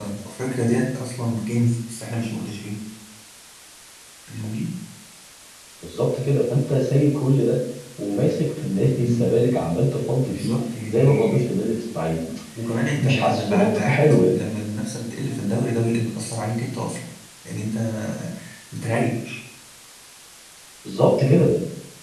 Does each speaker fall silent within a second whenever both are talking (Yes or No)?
No